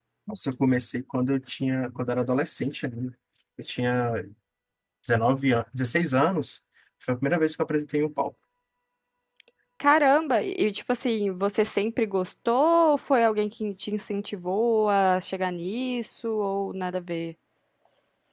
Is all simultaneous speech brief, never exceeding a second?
Yes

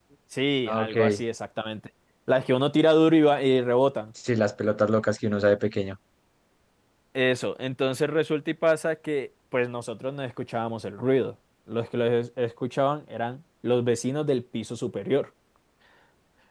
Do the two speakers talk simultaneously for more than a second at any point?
No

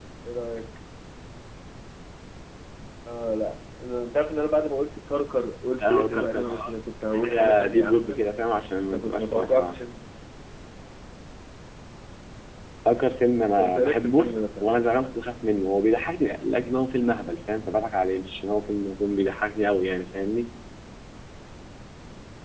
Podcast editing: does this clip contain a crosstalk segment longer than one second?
Yes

